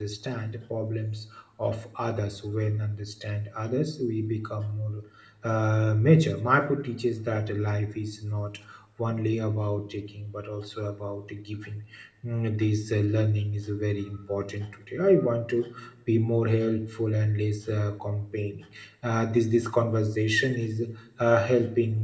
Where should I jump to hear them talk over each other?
none

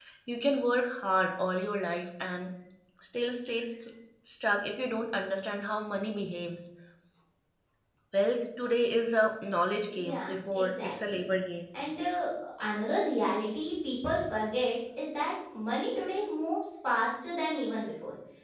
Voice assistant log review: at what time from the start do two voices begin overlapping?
9.9 s

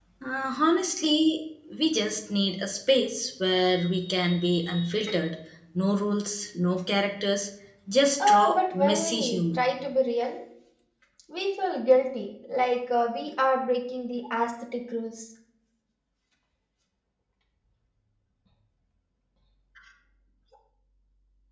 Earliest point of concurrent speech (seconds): 8.3 s

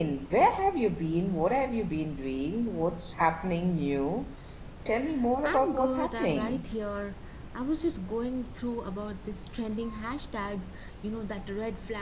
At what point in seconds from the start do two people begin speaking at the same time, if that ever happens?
5.4 s

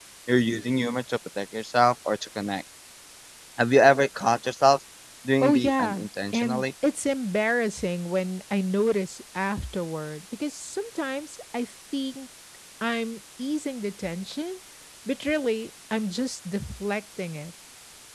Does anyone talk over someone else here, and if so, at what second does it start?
5.4 s

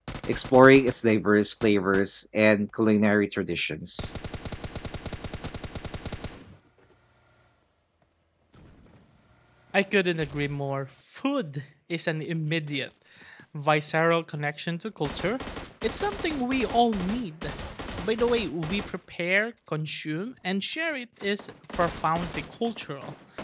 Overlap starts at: none

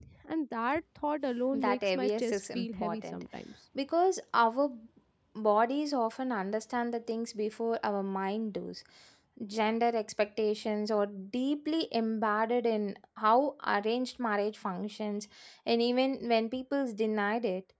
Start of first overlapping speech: 1.5 s

